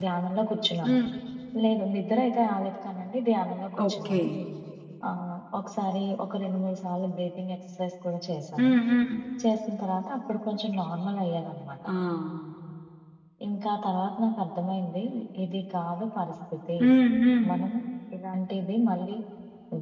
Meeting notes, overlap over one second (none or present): none